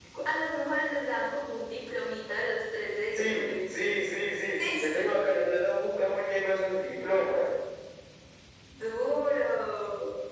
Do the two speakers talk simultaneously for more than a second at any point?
No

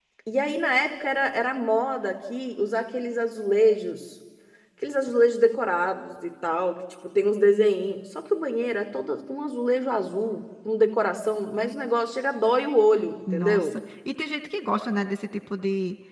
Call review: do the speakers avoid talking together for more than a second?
Yes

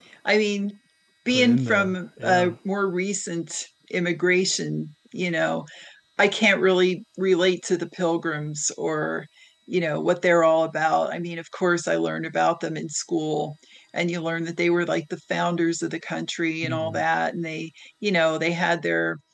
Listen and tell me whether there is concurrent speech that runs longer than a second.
Yes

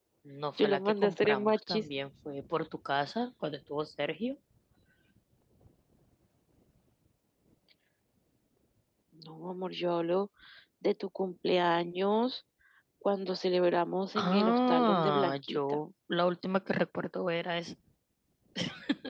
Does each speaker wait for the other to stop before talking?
No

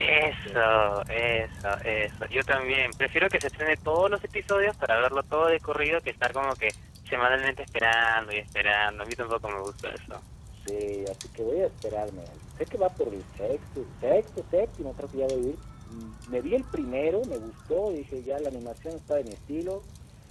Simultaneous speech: No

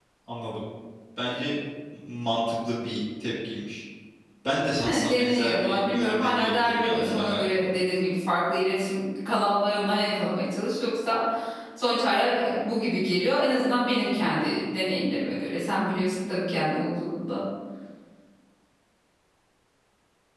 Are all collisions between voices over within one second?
No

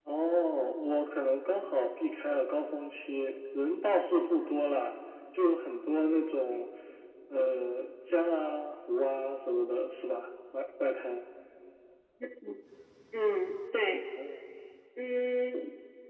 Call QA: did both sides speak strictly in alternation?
Yes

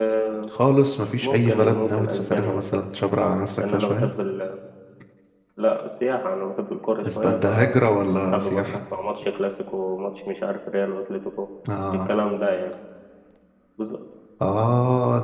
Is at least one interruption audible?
Yes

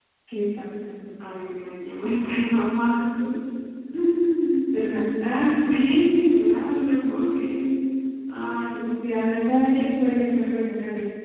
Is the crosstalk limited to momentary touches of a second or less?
Yes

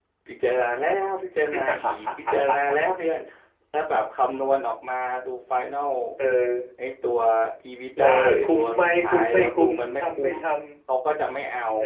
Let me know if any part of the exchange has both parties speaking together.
Yes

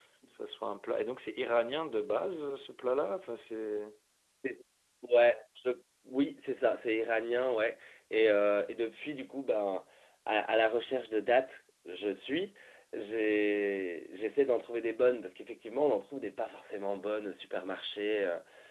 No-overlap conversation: Yes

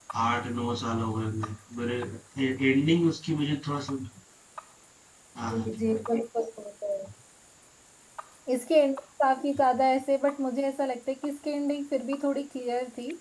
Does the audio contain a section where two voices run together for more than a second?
No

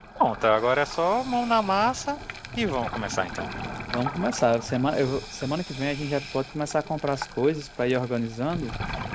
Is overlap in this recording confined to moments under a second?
Yes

